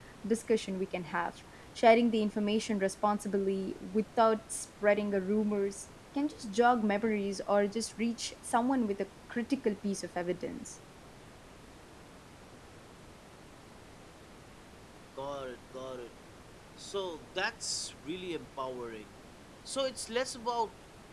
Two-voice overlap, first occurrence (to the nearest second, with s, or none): none